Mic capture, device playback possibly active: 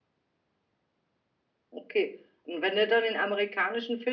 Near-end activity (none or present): none